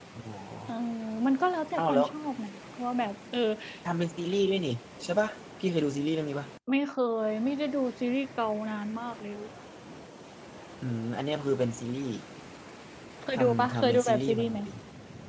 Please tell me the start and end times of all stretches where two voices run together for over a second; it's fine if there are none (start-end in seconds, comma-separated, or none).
13.3-14.6